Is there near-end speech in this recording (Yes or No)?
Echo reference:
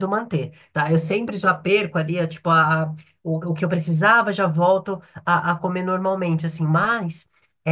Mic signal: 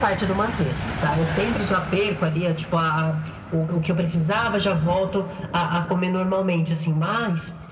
No